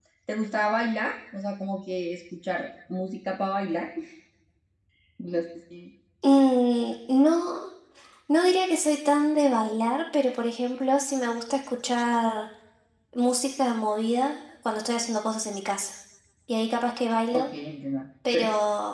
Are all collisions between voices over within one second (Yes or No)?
Yes